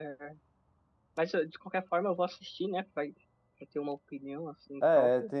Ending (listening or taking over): taking over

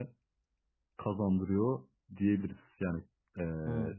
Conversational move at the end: listening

